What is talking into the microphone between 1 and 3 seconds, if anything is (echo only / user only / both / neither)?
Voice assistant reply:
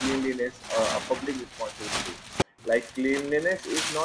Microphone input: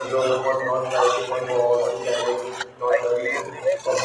both